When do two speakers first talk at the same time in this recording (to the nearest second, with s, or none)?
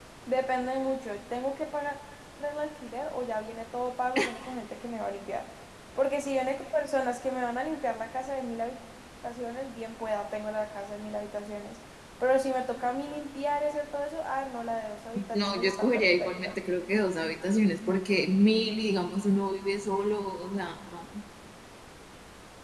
15 s